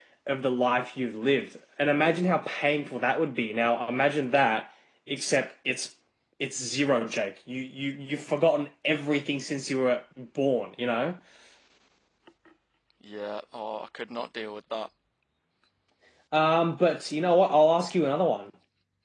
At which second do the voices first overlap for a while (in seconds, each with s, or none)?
none